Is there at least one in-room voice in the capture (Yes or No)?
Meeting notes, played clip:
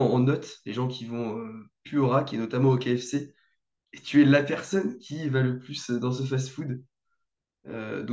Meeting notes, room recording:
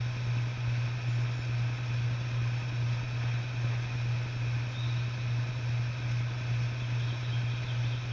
No